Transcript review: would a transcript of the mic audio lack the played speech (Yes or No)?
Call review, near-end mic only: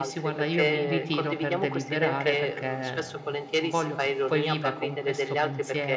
No